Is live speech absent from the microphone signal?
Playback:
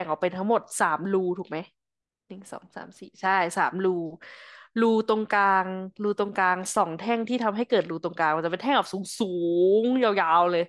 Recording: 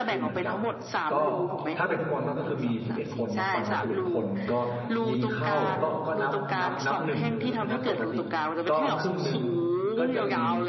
No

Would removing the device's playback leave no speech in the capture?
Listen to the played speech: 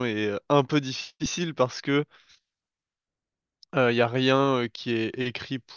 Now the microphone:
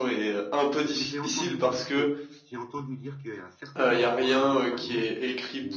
No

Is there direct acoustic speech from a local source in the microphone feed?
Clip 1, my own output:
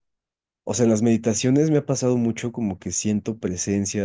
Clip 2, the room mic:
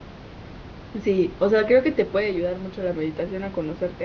Yes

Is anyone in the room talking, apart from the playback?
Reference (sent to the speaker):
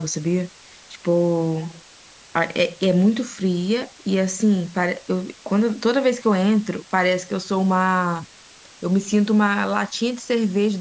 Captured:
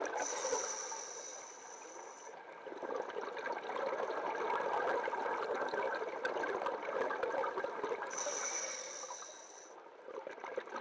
No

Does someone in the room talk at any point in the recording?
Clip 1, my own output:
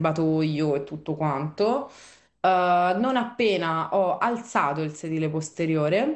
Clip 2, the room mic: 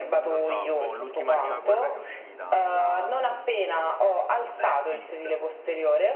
Yes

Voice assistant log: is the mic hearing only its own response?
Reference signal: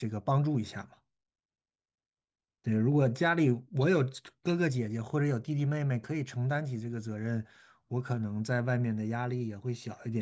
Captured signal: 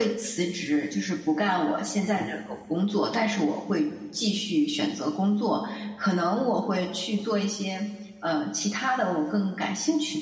No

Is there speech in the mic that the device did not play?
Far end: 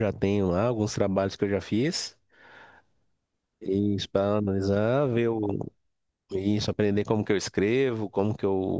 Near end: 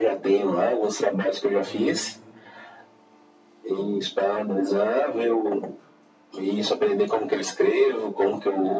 Yes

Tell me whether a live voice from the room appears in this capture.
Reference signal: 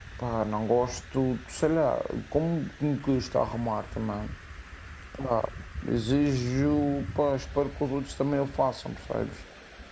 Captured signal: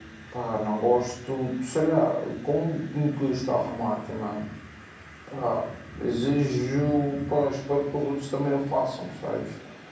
No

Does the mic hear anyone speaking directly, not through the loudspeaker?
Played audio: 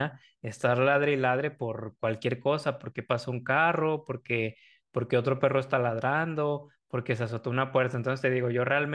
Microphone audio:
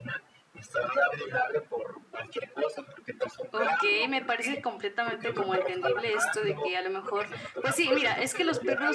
Yes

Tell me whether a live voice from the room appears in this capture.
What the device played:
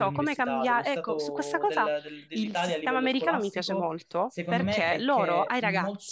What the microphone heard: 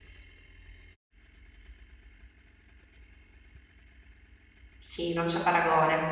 Yes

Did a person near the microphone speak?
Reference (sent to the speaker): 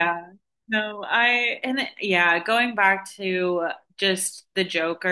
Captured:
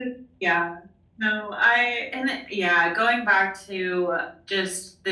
No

